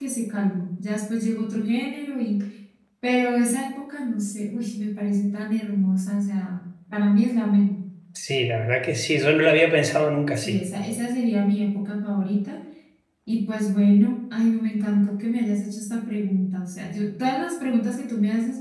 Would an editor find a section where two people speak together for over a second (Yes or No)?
No